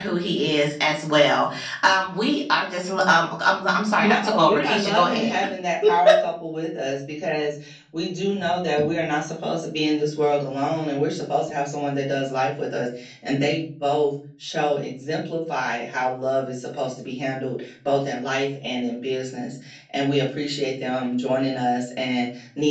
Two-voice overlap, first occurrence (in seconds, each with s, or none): 4.0 s